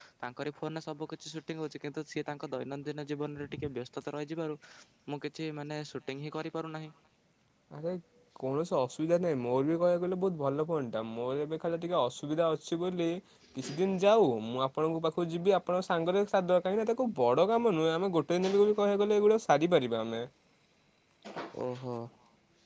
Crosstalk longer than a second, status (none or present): none